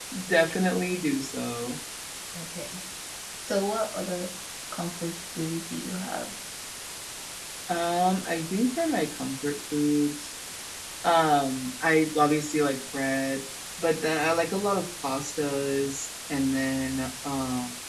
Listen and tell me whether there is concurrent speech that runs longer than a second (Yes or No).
No